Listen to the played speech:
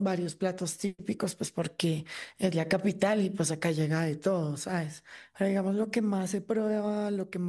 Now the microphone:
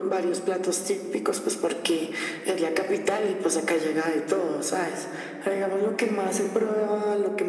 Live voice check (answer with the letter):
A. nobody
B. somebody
A